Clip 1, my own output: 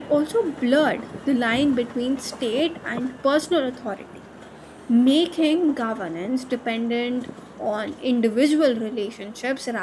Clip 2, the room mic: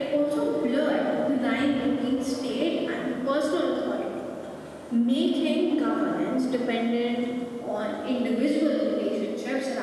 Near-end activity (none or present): none